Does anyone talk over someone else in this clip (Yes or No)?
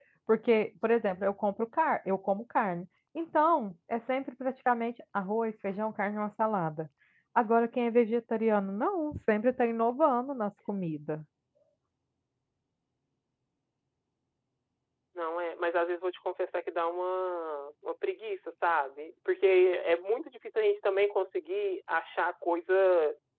No